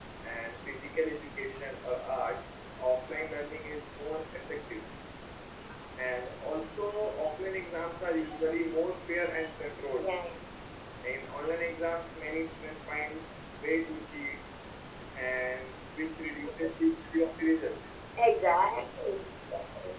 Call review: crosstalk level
none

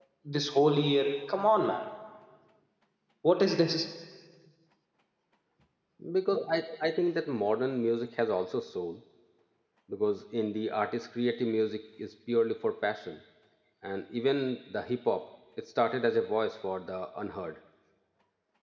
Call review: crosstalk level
none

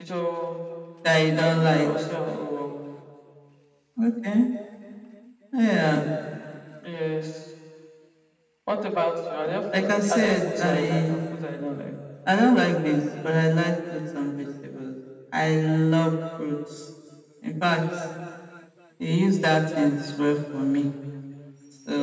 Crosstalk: present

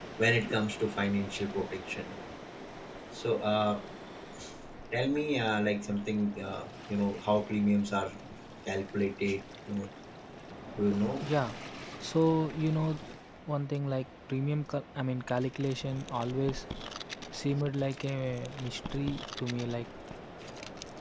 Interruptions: none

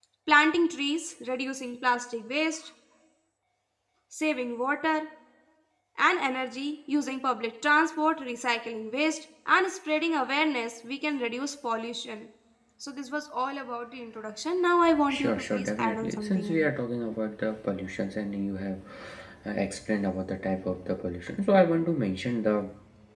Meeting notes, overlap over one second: present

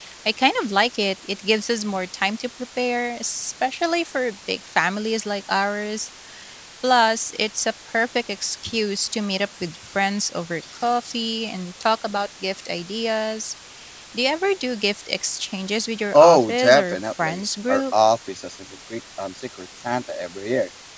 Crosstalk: present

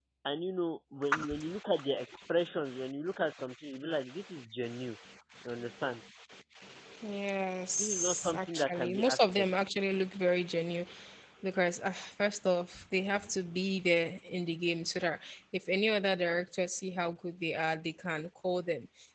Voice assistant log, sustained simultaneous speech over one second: present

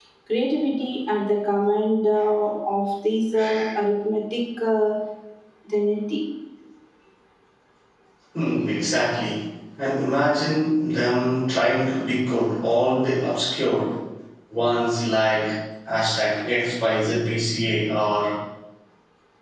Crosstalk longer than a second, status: none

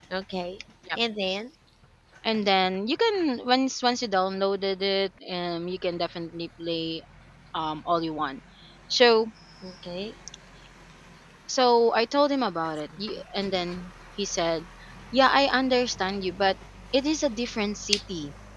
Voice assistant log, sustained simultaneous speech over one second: none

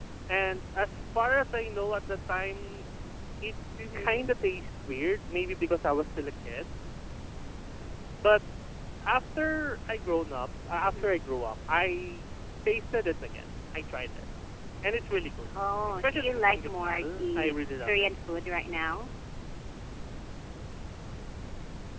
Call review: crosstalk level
present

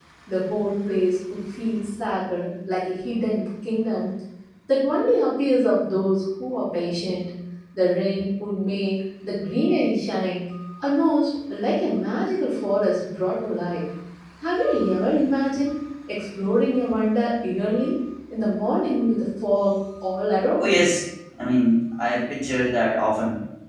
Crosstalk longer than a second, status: none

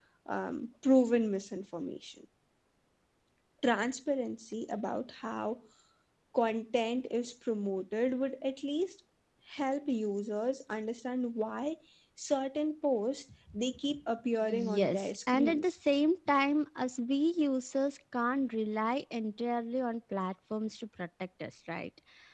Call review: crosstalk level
present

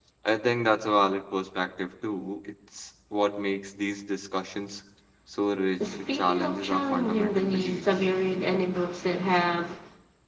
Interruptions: present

